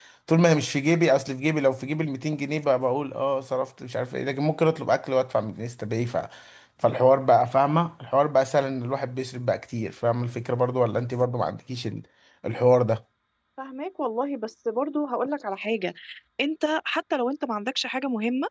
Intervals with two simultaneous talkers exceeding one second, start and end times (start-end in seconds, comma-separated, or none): none